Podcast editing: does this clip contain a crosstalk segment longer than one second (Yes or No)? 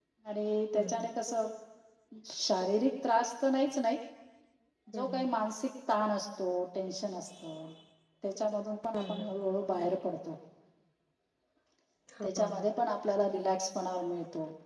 No